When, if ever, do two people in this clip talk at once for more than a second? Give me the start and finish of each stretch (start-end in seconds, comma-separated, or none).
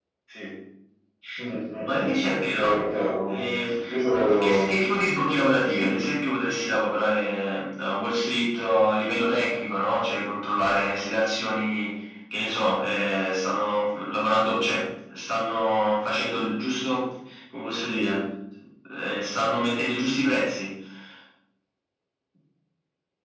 none